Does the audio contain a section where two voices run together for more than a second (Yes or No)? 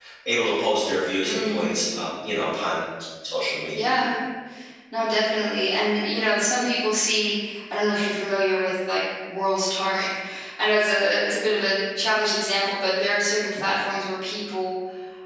No